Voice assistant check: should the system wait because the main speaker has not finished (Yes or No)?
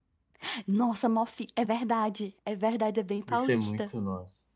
No